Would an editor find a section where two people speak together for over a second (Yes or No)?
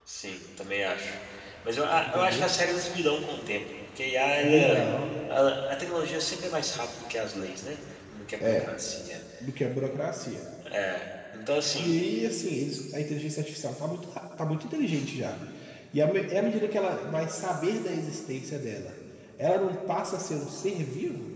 No